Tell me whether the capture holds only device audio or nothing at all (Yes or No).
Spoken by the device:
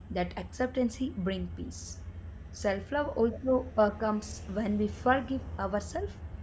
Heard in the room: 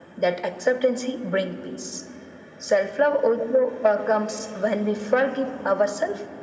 Yes